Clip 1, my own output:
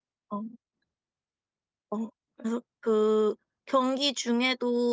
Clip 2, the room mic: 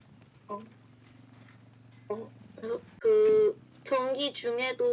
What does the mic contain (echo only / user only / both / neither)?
echo only